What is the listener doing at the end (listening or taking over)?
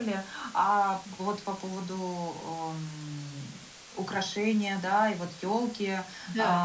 listening